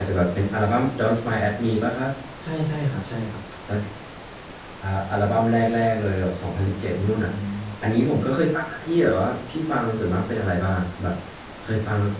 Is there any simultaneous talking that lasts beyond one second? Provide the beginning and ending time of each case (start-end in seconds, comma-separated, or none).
none